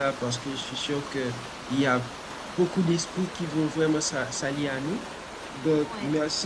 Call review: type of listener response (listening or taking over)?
listening